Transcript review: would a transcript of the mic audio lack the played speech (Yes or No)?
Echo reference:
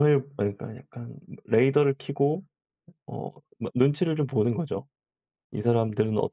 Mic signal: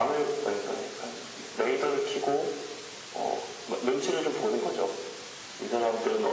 No